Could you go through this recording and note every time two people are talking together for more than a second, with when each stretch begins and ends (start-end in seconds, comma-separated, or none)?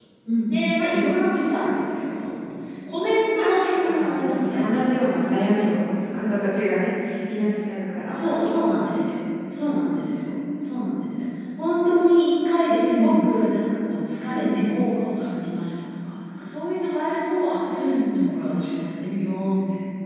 3.4-5.2